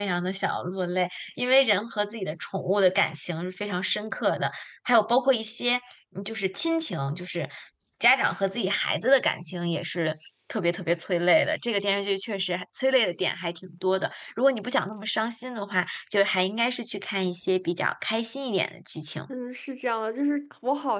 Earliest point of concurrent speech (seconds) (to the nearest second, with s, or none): none